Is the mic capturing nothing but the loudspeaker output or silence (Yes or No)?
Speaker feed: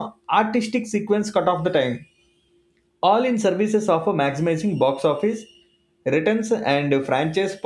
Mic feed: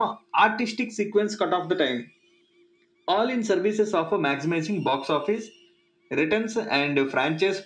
Yes